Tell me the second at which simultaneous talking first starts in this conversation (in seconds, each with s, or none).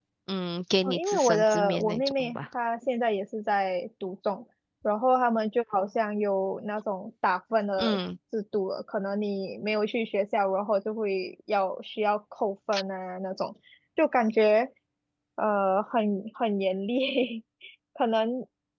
0.8 s